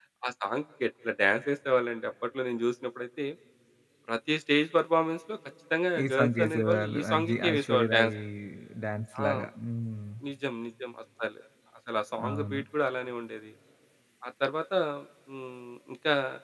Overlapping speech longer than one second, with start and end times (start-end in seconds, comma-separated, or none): 6.0-8.1